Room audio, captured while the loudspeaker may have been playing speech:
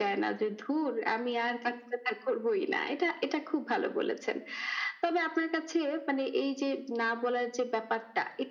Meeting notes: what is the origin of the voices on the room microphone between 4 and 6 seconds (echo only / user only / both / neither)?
echo only